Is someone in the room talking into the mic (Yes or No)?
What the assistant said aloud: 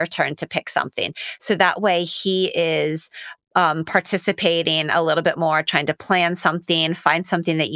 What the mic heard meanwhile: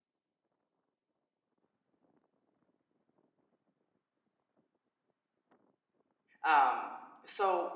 Yes